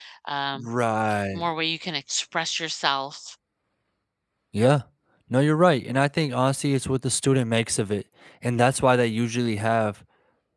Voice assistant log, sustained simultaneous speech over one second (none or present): none